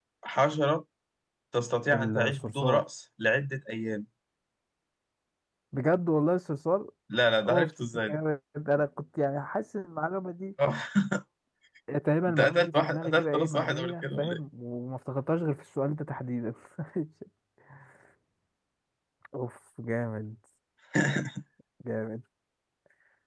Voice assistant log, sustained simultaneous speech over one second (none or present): present